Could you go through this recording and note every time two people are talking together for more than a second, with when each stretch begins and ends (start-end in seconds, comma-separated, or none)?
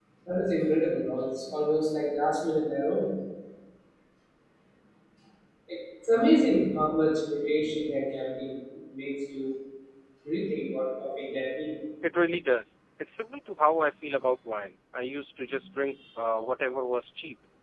none